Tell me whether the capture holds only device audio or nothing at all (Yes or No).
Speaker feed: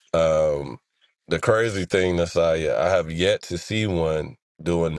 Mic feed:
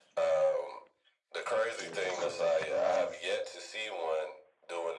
No